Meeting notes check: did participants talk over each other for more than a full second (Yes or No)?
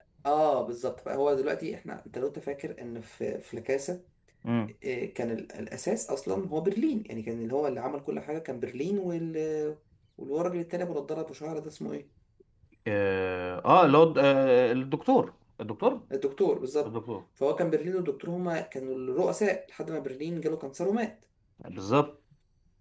No